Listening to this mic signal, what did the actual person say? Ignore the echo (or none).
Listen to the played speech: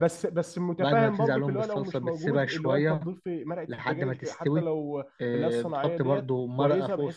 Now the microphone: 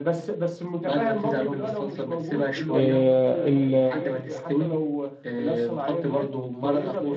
آه، ال-